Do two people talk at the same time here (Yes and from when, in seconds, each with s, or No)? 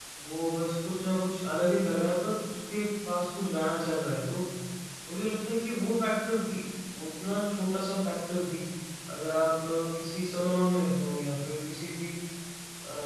No